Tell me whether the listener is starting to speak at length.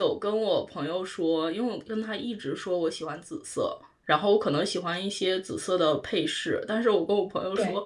No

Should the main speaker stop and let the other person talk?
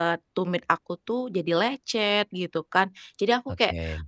No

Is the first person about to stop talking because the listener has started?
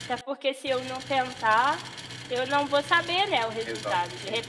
No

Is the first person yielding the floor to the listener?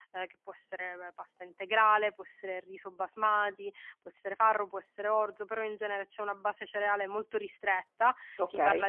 No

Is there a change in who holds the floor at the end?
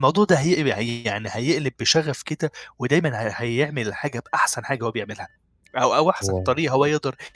No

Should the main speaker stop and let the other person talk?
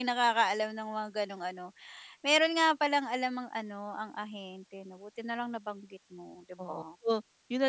Yes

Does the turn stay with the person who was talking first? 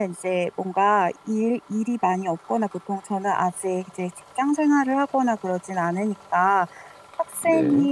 Yes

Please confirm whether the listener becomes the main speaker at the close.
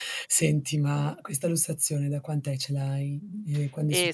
Yes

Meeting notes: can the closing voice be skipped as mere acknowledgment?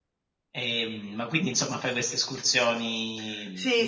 No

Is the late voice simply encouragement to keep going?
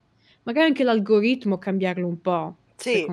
No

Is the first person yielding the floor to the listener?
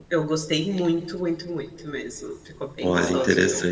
Yes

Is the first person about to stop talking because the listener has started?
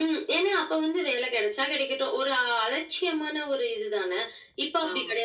No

